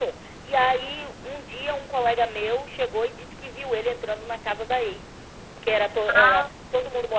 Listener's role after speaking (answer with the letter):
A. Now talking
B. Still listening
B